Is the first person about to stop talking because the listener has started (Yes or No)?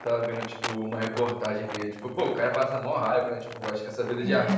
No